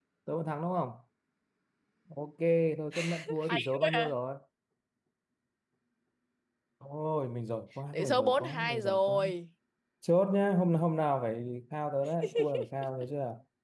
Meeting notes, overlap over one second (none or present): present